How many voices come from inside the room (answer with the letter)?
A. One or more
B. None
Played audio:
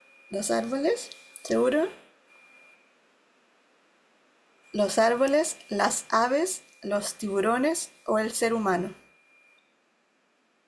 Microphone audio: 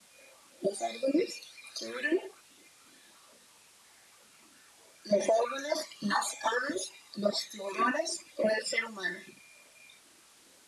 B